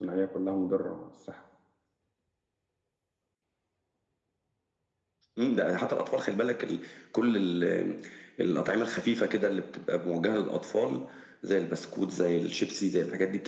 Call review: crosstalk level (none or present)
none